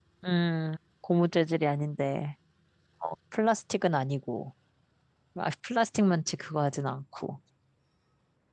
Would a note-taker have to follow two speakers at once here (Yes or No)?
No